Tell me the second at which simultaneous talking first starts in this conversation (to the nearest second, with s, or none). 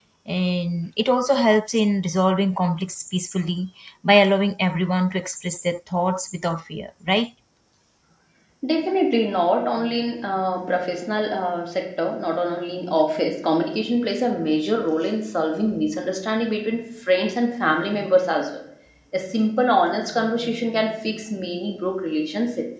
none